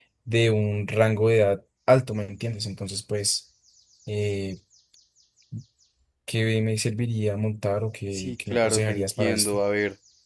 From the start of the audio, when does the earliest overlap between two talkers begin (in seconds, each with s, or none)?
8.1 s